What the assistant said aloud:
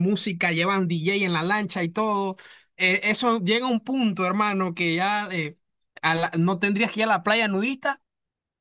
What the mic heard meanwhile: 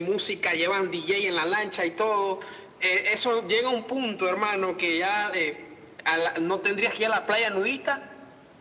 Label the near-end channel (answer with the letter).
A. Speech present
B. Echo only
B